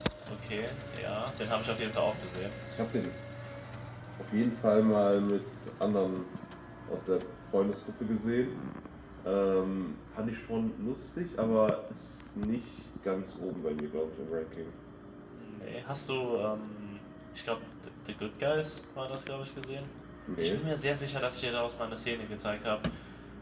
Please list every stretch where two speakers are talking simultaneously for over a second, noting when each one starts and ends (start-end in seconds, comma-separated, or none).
none